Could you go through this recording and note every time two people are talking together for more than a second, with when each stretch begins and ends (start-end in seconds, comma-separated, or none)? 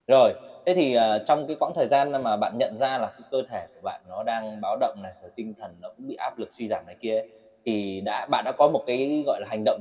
none